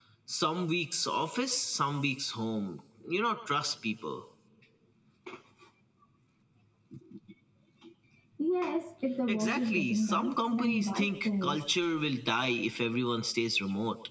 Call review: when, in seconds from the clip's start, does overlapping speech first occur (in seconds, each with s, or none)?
9.3 s